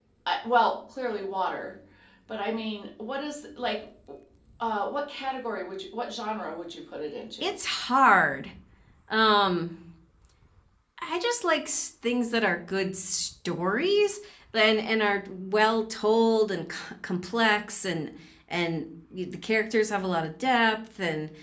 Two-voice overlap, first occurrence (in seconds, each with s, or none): none